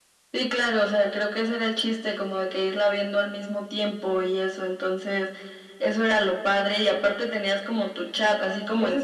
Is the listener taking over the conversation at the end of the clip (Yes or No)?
Yes